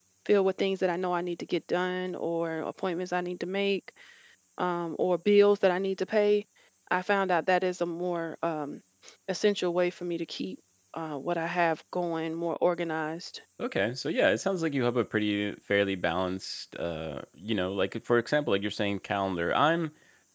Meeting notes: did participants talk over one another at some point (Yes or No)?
No